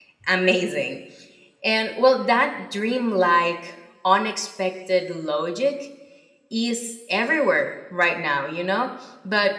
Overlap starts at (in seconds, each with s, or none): none